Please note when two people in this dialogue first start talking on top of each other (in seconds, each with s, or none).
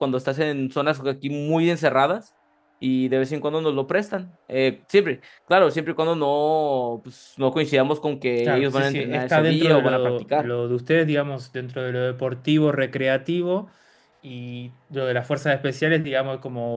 8.4 s